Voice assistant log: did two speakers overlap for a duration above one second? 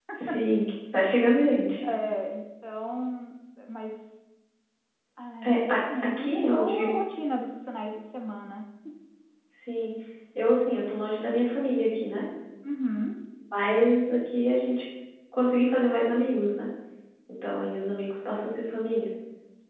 Yes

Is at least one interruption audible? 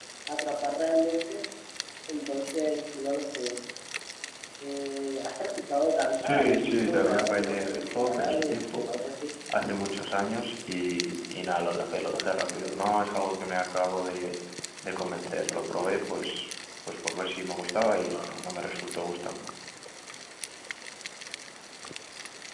Yes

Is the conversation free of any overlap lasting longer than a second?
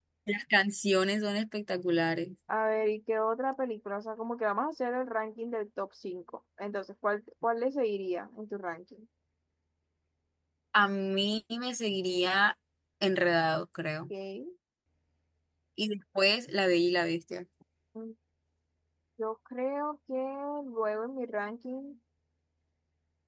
Yes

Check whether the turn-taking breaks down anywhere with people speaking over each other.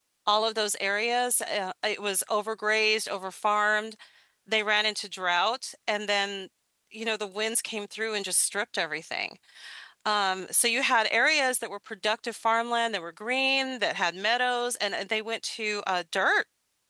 No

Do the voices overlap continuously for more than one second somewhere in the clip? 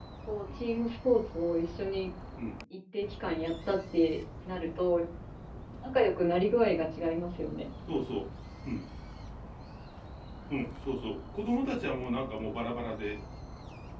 No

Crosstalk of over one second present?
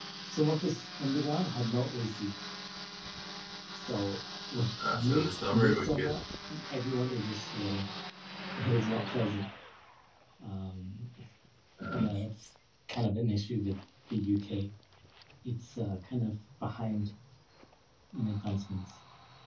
Yes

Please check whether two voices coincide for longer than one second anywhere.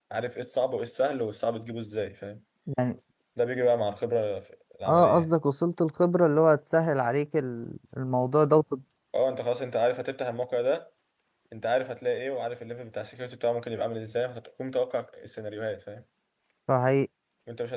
No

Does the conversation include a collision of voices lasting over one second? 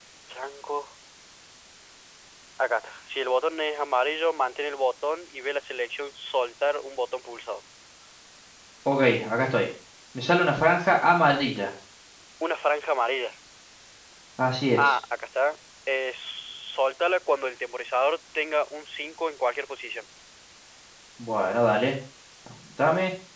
No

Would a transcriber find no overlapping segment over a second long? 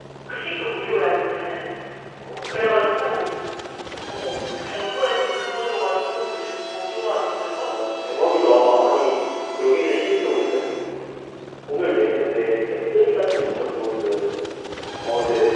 Yes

